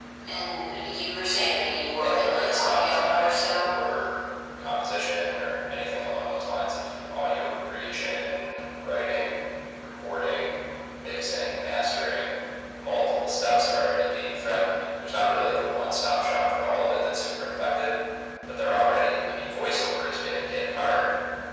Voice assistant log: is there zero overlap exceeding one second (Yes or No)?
No